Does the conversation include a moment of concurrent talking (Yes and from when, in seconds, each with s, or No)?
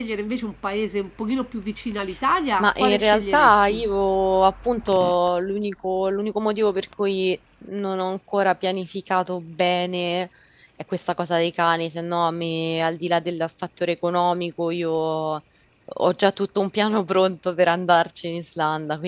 Yes, from 2.6 s